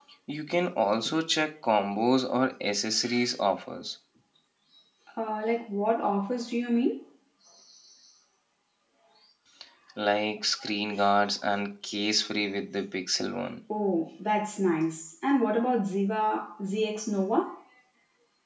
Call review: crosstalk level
none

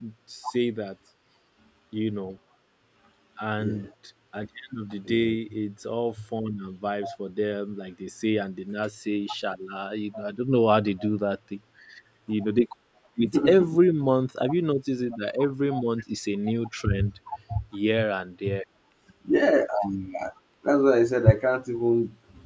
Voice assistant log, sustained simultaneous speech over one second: none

